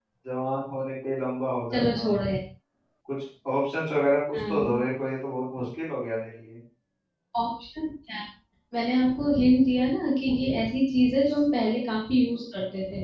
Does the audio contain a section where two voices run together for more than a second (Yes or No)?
No